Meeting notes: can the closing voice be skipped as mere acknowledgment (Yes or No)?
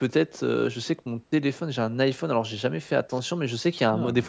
Yes